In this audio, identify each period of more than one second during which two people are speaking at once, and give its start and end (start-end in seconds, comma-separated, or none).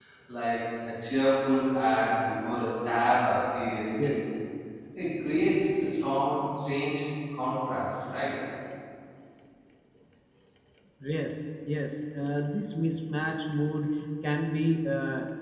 none